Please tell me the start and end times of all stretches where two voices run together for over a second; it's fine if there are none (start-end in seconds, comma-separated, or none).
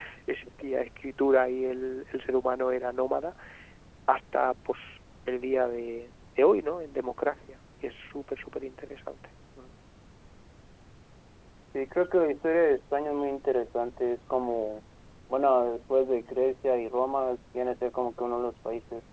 none